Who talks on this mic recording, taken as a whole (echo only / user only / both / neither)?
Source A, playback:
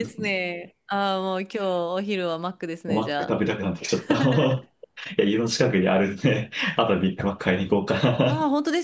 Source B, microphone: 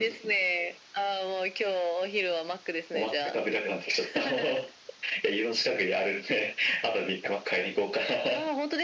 echo only